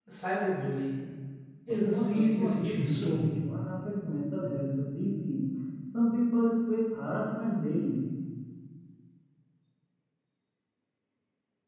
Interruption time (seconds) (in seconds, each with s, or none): 1.9 s